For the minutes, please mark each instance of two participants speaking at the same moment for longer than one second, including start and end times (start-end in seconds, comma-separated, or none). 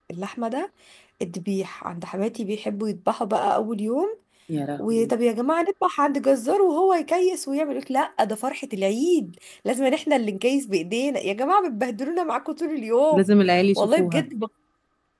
none